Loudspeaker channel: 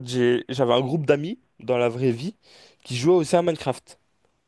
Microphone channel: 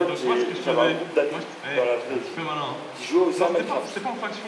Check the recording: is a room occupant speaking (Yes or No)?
Yes